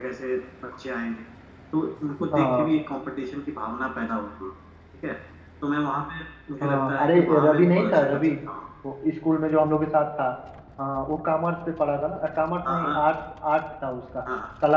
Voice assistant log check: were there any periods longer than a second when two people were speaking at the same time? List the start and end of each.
6.6-8.2

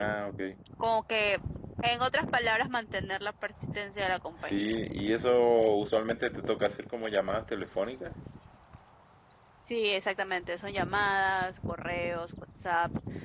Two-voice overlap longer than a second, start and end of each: none

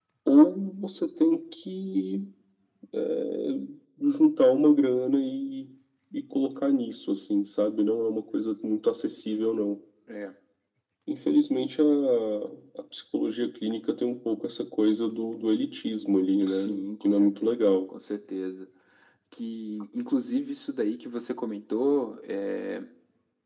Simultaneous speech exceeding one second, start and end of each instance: 16.5-17.7

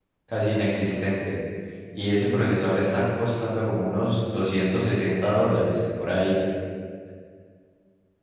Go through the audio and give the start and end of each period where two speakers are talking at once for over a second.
none

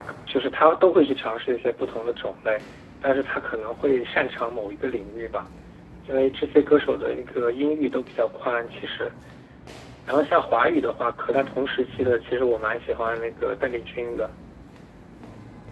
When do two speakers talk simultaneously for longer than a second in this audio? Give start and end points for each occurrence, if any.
none

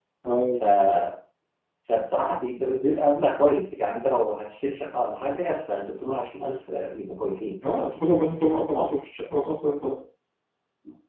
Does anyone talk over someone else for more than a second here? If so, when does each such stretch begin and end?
none

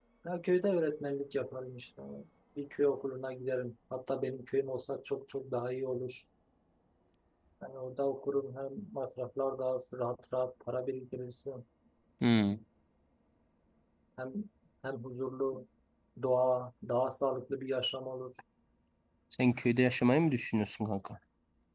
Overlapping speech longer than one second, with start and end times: none

